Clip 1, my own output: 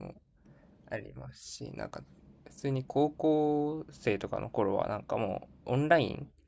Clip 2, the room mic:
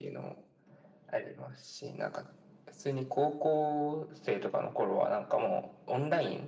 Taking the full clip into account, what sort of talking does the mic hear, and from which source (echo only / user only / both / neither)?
echo only